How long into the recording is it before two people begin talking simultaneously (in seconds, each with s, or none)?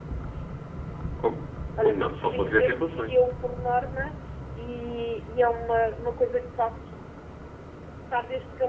1.8 s